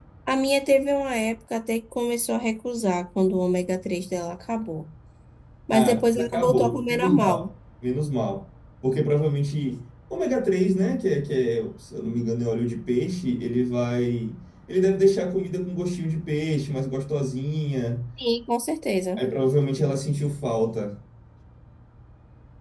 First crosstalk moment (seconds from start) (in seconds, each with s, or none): 5.7 s